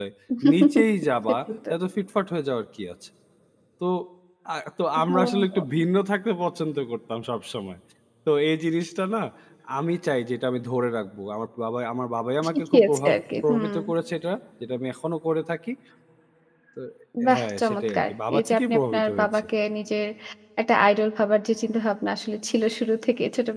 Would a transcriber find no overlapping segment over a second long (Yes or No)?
No